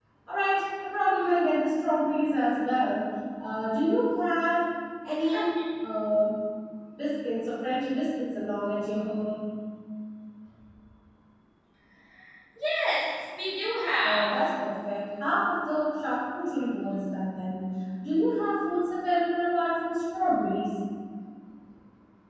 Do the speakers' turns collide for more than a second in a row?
No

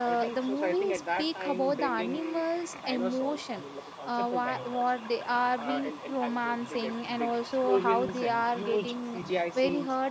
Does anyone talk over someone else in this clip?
Yes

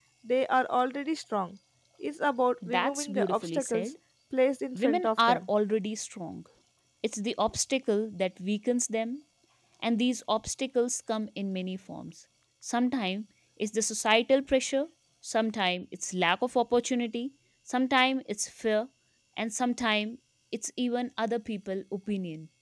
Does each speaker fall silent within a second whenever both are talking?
No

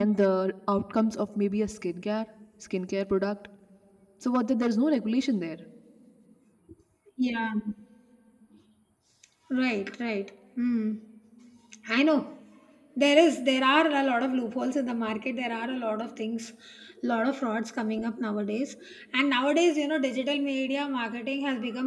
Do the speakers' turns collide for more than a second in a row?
No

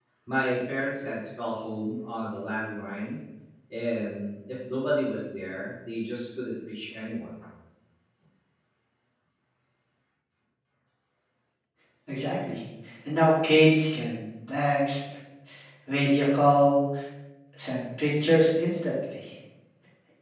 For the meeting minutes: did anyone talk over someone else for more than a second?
No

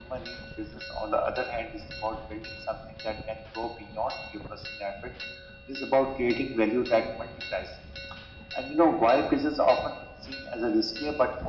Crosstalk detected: No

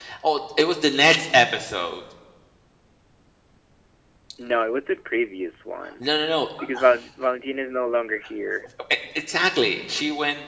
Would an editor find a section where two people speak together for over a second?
No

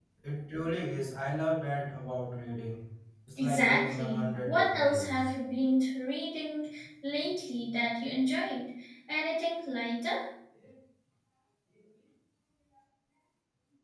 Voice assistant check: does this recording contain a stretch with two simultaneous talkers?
Yes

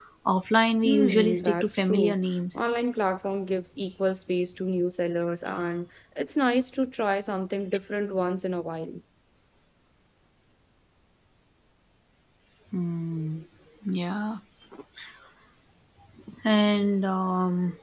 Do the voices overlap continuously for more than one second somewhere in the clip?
Yes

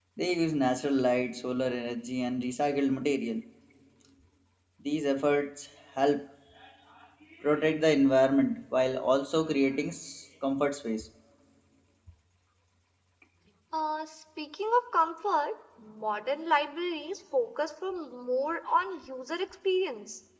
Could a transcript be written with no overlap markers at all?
Yes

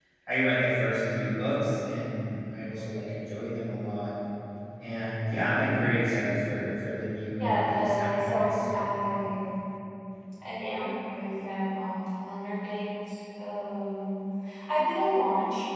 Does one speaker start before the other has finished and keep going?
Yes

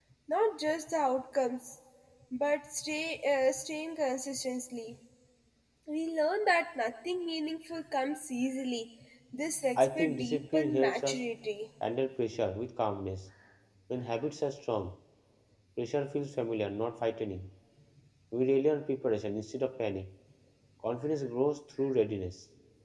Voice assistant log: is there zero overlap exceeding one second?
No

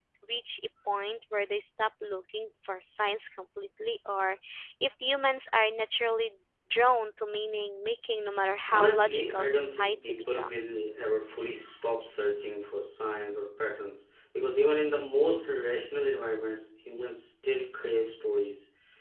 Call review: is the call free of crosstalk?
No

